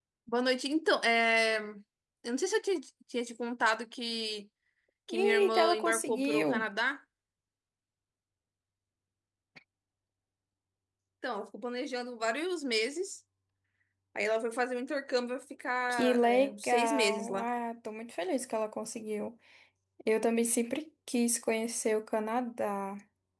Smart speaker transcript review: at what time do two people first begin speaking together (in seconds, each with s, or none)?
5.1 s